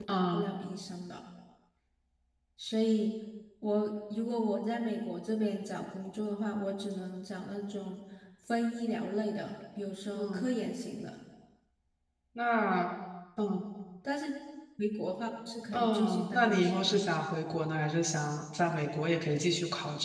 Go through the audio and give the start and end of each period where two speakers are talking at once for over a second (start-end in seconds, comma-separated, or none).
15.7-17.0